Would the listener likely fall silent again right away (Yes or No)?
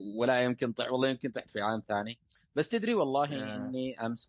Yes